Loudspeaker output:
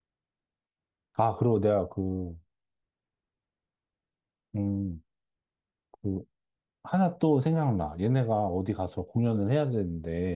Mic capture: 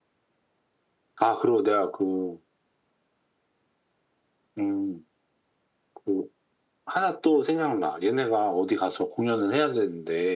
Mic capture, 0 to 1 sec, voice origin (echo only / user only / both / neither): neither